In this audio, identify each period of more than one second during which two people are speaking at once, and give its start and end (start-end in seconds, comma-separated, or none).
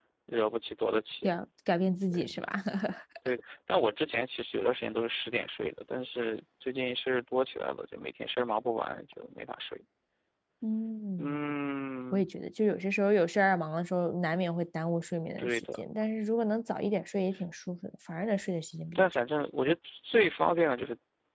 none